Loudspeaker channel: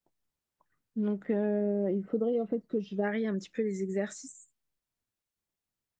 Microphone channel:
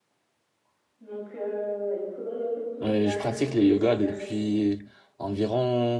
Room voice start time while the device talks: 2.8 s

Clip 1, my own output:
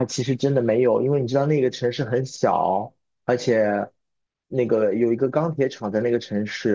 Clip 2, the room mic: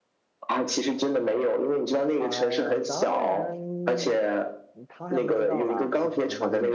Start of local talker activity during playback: 2.1 s

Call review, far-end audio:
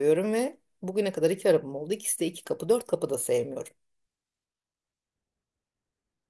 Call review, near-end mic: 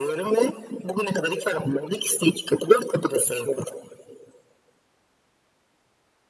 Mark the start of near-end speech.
none

